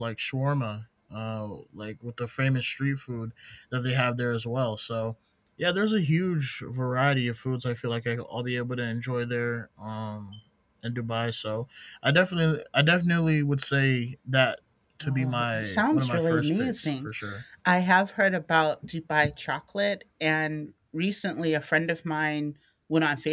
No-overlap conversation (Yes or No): No